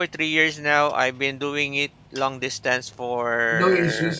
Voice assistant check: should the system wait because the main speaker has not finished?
Yes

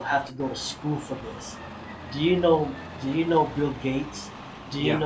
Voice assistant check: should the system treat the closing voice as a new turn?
No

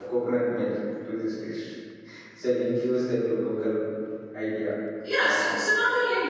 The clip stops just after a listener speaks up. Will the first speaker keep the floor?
No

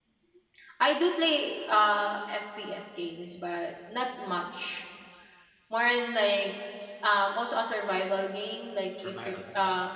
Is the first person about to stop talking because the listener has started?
No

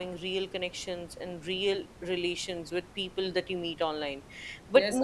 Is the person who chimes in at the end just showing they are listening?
No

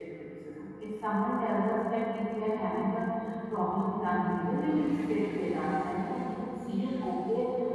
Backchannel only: Yes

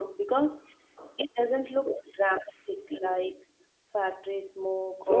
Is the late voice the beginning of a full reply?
Yes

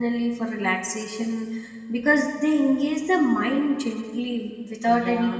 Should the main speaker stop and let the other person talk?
No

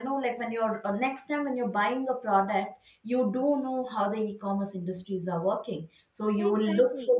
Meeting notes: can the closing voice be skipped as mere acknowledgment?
Yes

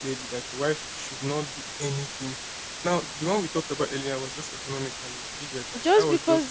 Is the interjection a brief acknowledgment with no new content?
No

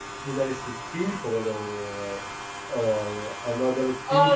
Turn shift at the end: No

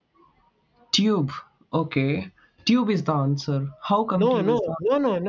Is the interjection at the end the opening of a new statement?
Yes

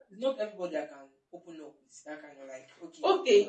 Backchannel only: No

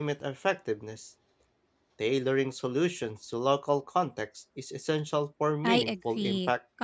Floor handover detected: Yes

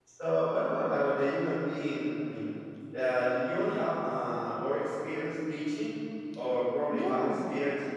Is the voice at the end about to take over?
No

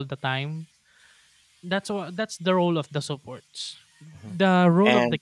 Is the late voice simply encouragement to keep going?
Yes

